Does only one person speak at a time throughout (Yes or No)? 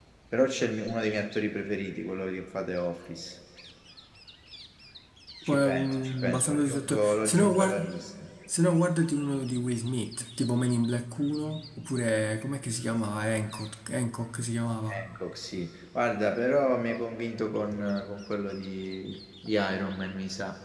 No